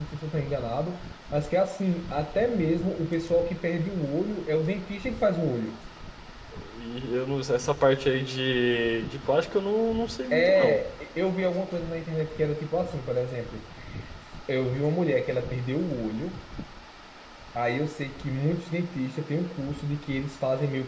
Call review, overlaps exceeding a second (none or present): none